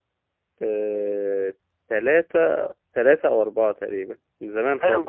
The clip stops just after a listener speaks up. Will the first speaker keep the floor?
No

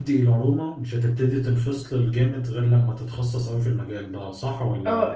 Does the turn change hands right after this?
Yes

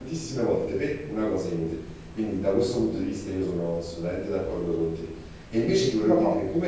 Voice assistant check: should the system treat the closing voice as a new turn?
No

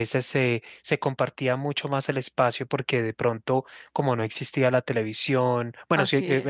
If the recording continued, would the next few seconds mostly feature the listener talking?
No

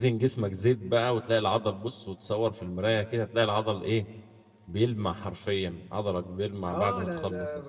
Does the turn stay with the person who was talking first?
No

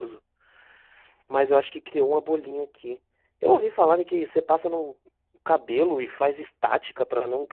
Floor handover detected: Yes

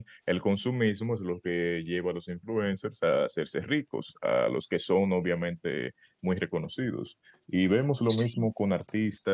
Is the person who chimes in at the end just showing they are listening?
Yes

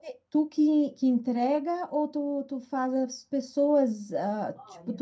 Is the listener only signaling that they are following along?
Yes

